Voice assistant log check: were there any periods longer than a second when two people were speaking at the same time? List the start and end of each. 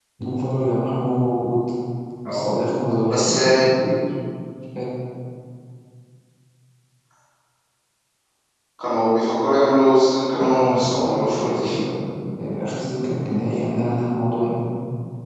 10.4-11.7

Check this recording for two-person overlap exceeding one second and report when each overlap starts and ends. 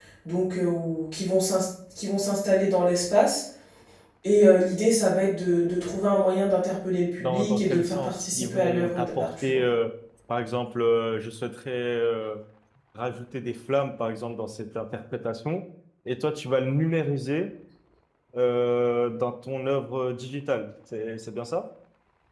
7.2-9.6

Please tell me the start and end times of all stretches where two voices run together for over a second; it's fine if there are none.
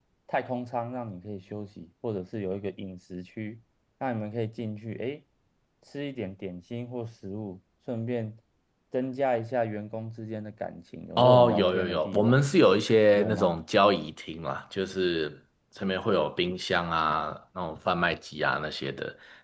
11.2-12.5

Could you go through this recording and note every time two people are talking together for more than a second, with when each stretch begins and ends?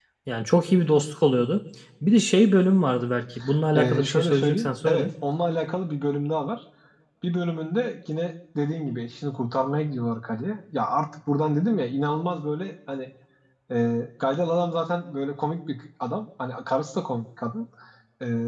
3.8-5.1

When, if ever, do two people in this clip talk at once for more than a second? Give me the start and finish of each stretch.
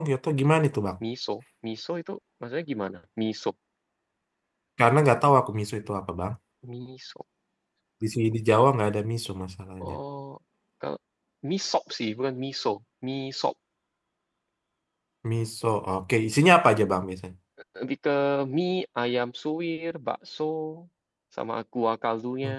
none

